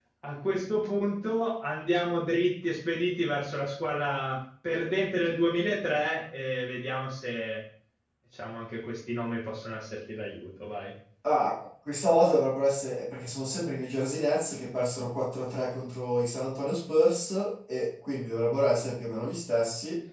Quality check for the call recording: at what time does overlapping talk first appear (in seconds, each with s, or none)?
none